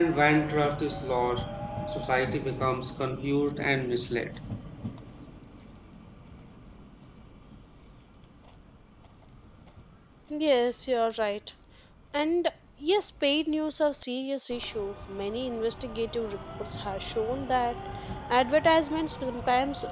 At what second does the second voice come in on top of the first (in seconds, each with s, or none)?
none